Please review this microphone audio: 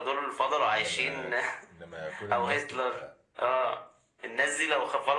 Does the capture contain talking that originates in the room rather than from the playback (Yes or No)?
Yes